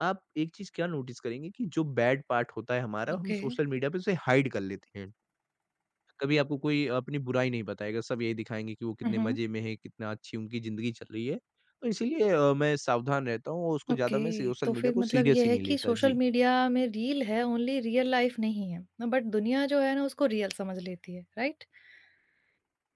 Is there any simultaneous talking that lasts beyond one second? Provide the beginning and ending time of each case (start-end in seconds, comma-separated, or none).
13.9-16.2